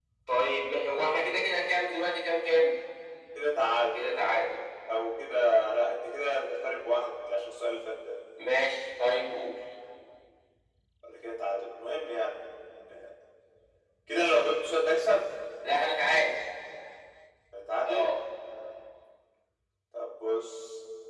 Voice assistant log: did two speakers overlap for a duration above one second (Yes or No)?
No